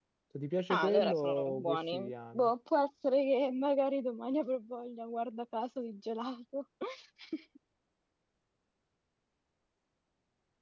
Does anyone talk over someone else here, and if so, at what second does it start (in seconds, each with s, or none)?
0.7 s